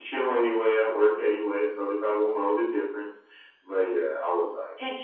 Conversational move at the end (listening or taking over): taking over